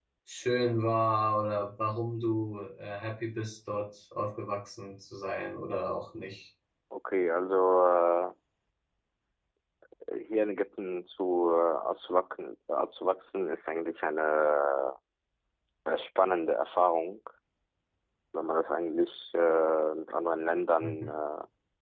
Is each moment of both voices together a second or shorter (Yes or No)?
Yes